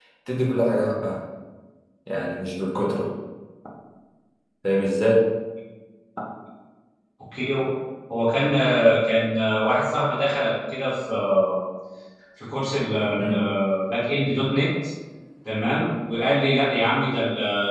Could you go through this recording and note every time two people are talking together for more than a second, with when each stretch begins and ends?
none

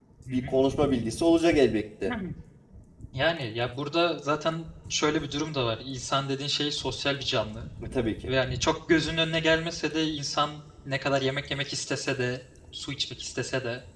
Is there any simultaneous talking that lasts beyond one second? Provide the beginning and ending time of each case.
none

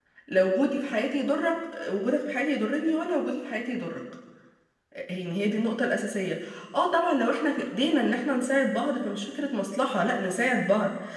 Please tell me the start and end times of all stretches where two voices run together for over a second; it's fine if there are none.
none

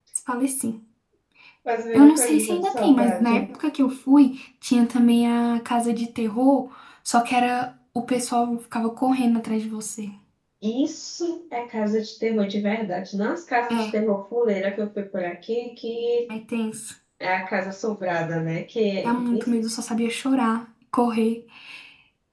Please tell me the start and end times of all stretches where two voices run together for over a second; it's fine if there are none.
1.9-3.4

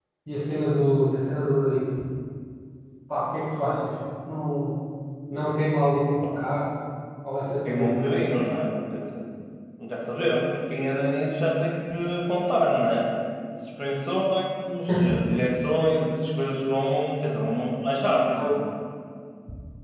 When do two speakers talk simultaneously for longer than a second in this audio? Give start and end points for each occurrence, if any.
none

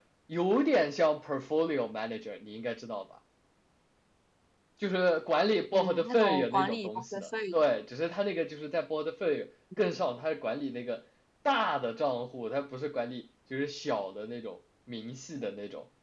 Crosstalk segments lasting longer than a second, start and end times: 5.7-7.5

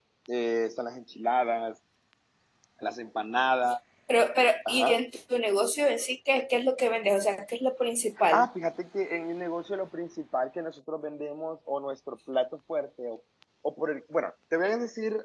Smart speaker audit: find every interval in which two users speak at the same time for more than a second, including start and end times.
none

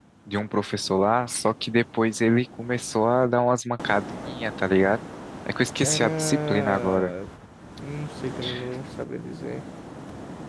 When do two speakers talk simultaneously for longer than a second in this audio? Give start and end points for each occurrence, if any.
5.8-7.1

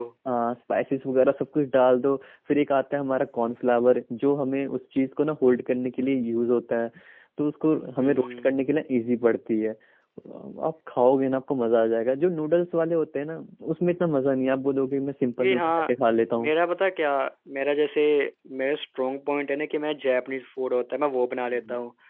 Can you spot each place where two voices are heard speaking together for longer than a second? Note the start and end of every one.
none

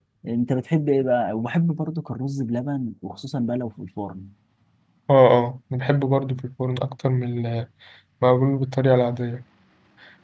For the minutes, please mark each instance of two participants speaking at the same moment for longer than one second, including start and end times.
none

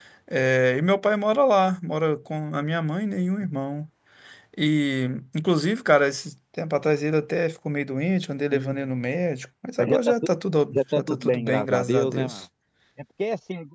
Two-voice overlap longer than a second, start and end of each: 10.7-12.4

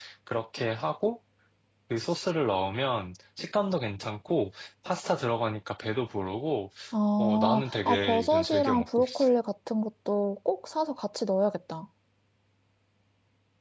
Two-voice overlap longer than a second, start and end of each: 7.2-9.2

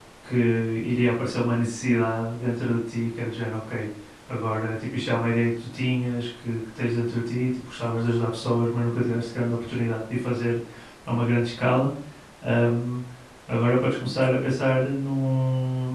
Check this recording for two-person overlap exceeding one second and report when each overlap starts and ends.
none

